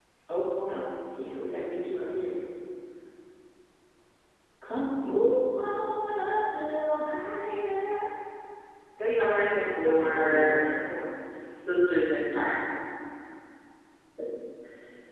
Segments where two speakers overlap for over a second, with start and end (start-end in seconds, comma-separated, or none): 9.2-10.4